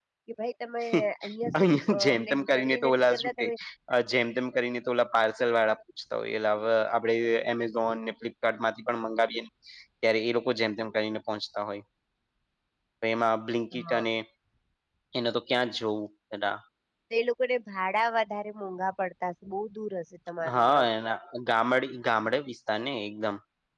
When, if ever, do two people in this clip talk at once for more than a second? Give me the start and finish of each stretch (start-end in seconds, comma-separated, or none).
1.6-3.4